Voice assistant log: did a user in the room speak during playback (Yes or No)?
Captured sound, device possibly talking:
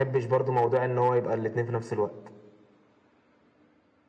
No